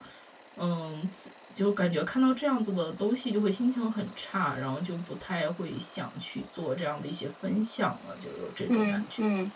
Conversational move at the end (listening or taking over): taking over